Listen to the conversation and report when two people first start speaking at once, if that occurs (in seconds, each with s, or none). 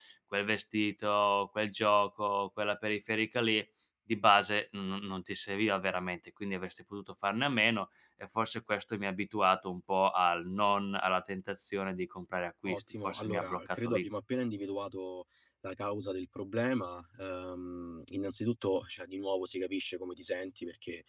12.7 s